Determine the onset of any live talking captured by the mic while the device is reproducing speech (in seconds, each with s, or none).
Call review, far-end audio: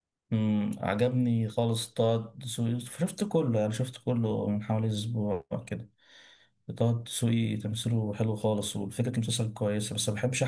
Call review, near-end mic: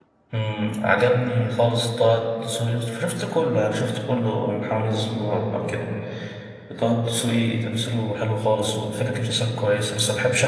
none